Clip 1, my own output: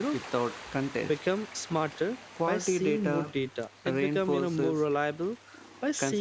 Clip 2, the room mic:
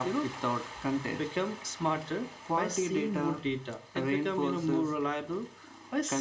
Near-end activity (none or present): none